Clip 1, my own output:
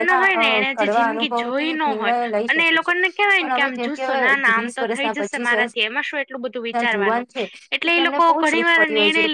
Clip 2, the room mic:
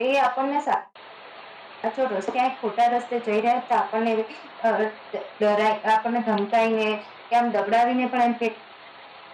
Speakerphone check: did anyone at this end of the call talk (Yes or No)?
Yes